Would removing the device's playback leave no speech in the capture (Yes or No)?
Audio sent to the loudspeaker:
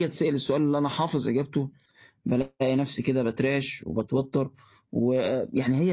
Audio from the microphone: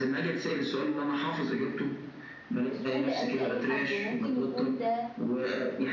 No